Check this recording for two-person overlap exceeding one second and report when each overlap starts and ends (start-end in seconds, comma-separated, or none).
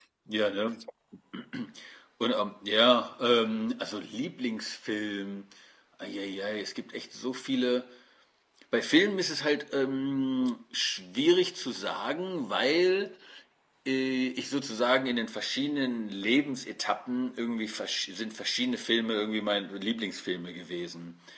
none